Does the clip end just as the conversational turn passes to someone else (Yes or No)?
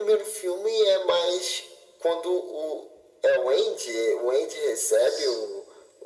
No